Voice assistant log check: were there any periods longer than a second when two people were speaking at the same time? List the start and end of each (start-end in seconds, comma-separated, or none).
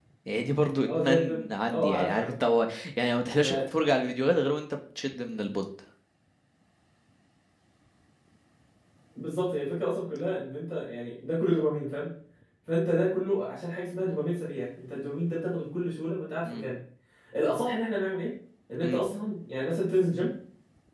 0.8-2.3